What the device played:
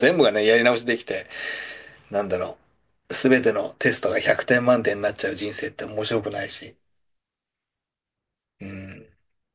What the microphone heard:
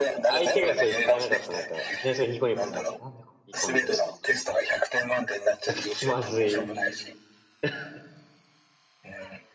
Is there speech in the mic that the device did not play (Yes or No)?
Yes